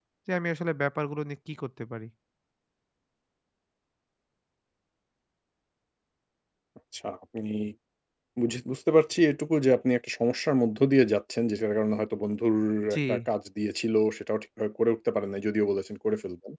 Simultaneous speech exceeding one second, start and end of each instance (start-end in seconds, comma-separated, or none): none